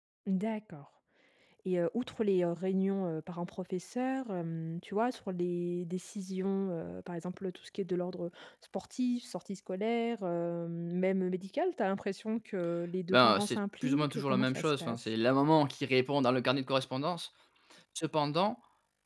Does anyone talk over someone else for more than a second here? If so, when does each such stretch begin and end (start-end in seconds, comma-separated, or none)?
13.1-15.0